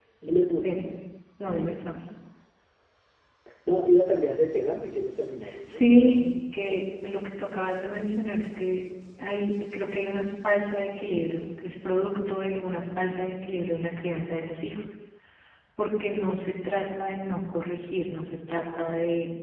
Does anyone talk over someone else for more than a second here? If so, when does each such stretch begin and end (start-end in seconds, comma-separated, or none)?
none